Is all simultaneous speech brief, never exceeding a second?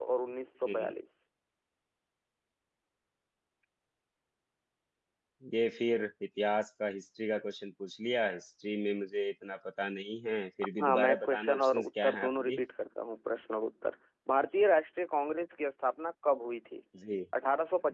No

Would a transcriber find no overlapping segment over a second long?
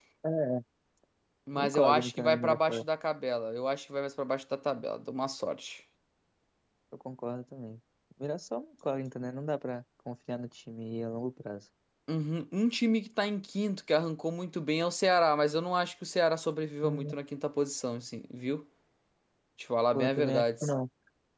No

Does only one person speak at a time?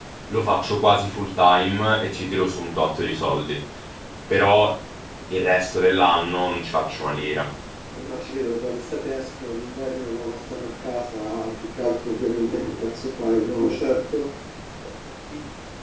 Yes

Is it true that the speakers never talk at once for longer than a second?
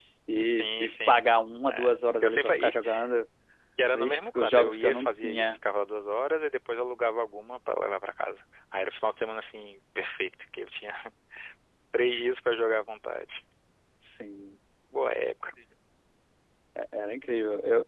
No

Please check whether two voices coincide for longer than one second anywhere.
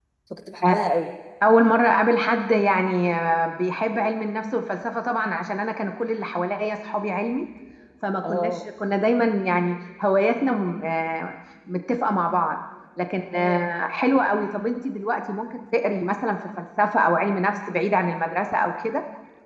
No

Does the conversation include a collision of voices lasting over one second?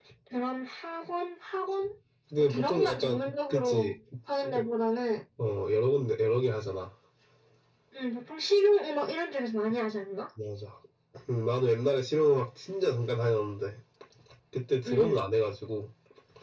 Yes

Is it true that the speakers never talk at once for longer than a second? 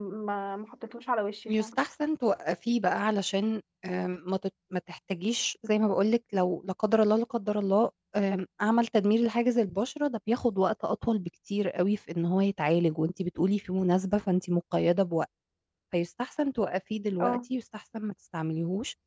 Yes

